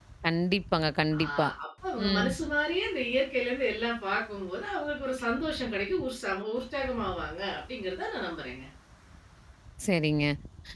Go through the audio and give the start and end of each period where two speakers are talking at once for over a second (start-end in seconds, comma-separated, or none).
none